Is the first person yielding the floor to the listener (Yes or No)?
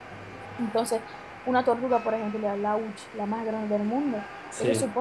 No